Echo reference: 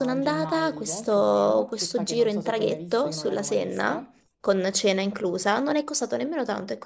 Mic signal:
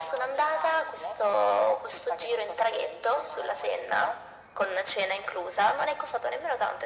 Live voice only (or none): none